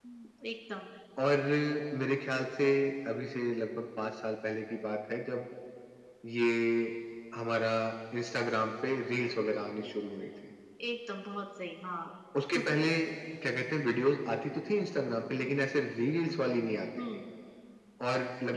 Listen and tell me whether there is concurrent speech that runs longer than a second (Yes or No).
No